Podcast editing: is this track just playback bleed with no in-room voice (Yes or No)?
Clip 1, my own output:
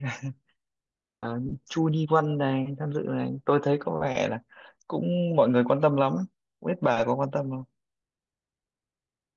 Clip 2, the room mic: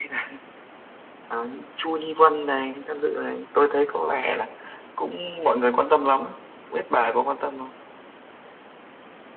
Yes